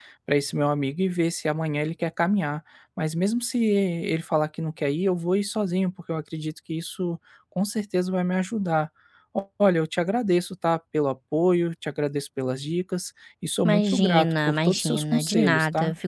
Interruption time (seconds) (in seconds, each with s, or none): 13.6 s